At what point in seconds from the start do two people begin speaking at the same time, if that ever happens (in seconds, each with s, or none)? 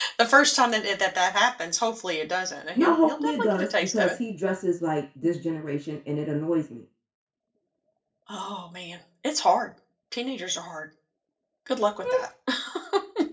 2.8 s